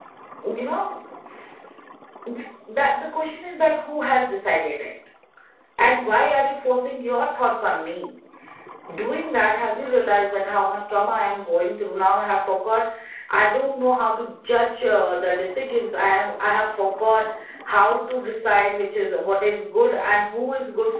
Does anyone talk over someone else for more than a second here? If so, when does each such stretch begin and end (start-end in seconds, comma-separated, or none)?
none